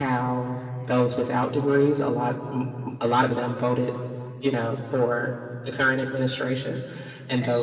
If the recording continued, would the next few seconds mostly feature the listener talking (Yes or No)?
No